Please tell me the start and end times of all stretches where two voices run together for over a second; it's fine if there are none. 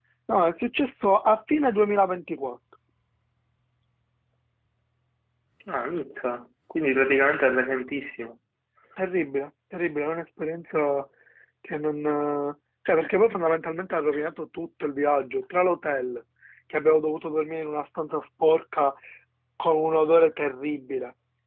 none

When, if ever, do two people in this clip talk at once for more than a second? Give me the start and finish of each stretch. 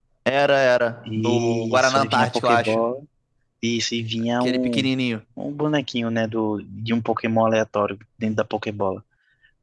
1.1-2.8

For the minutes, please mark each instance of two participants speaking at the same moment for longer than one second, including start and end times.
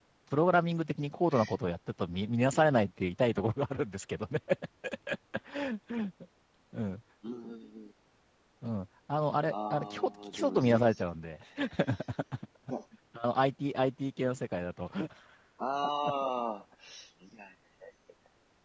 9.5-10.9

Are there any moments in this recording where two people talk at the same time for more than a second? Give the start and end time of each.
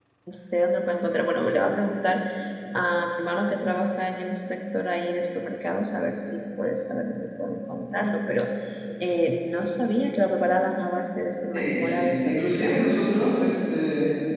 11.5-12.9

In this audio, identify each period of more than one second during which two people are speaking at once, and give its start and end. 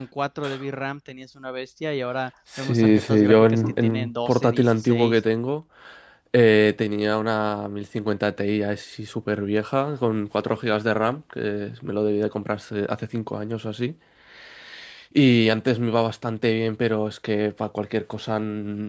2.6-5.2

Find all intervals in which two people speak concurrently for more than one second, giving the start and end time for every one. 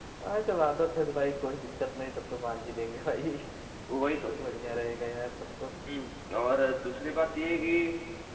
none

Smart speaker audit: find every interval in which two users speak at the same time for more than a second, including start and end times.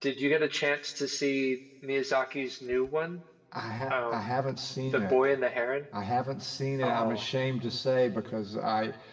none

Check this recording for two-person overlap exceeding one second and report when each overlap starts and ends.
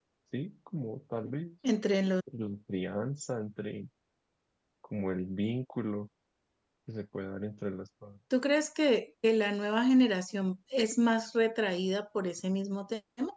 none

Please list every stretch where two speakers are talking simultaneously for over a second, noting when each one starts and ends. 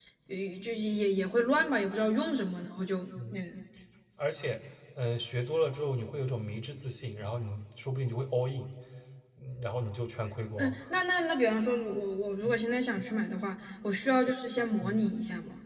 none

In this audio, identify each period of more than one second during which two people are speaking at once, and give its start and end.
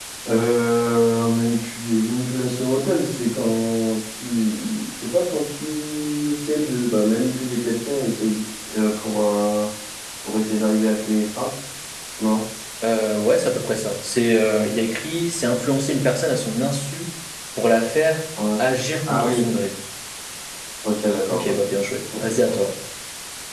none

